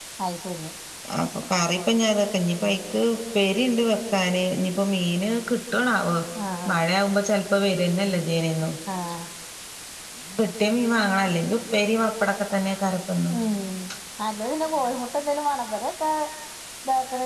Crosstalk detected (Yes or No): No